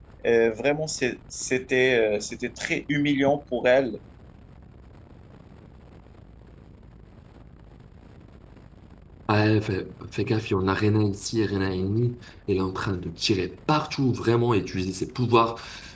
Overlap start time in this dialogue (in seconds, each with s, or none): none